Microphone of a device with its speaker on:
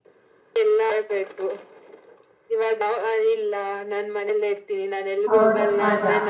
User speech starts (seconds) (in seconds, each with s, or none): 5.3 s